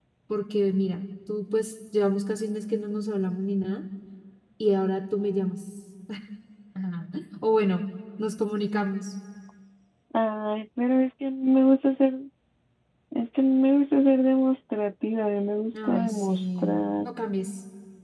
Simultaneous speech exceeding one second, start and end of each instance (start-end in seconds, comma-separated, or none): 15.9-17.1